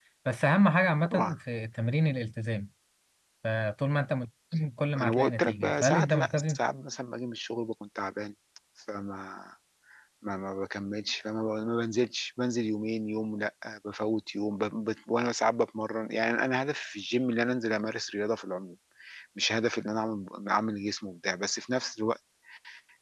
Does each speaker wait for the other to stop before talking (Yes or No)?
No